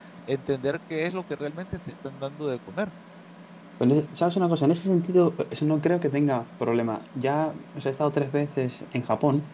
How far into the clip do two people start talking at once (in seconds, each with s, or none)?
none